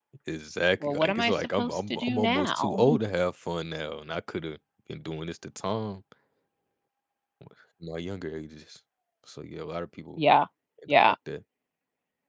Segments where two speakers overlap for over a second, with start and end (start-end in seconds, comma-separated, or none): 0.8-2.8